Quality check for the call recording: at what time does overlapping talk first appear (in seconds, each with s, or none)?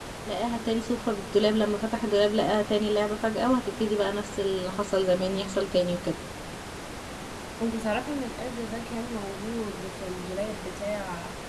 none